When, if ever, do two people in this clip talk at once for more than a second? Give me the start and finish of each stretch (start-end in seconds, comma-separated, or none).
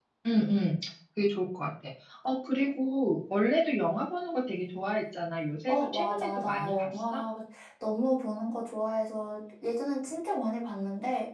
5.7-7.2